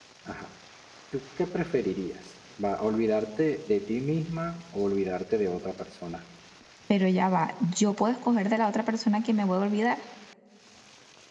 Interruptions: none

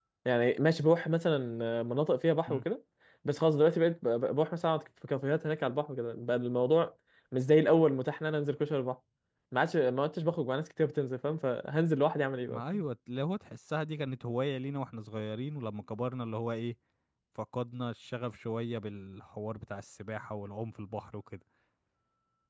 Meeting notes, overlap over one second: none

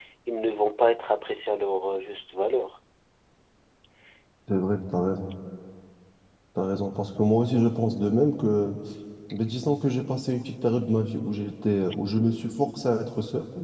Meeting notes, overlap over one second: none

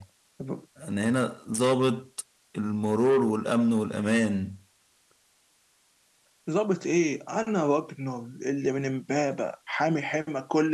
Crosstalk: none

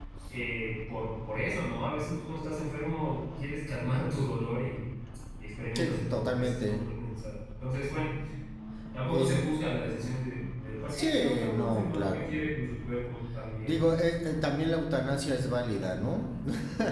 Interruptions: present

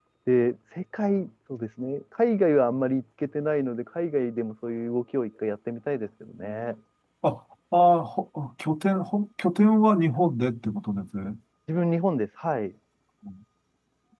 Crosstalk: none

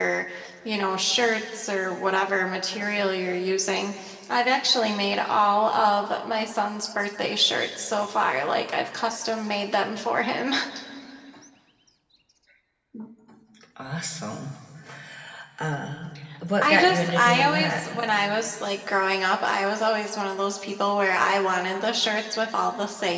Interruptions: present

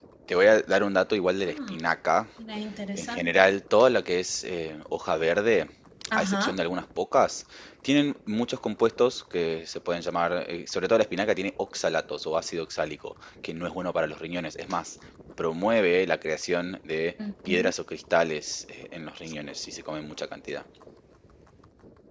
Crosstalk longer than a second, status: none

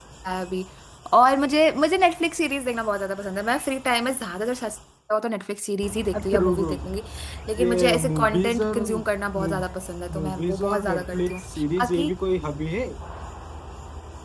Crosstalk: present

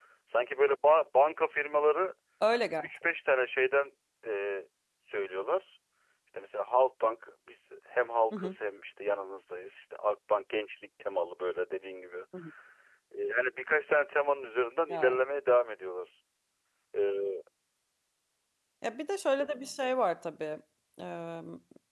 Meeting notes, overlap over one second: none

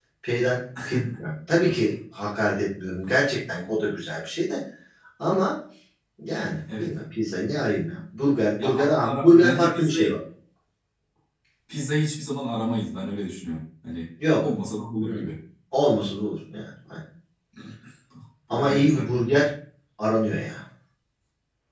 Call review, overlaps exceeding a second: present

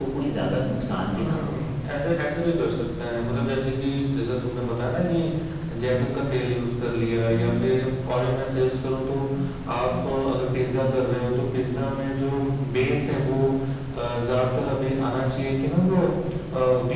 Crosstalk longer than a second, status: none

